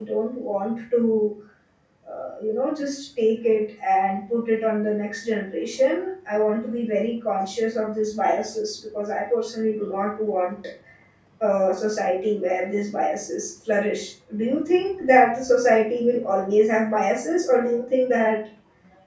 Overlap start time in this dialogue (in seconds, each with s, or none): none